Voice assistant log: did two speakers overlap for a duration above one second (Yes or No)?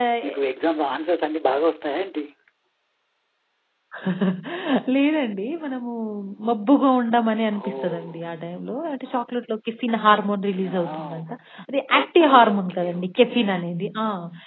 Yes